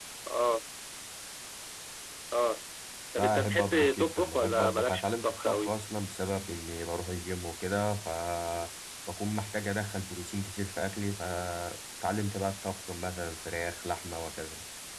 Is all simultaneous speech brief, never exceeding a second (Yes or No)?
No